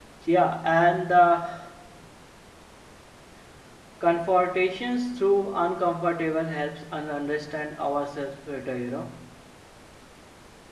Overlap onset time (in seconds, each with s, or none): none